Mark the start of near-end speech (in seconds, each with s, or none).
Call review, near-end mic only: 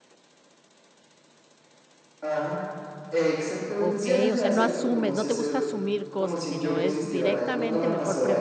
3.8 s